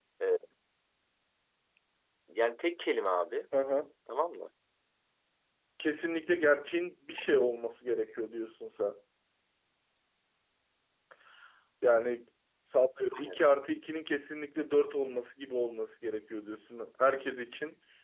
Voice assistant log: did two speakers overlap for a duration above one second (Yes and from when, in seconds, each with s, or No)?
No